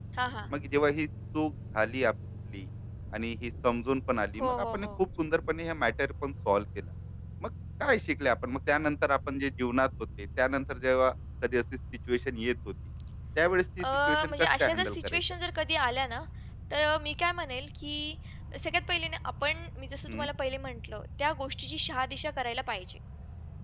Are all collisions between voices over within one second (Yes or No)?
No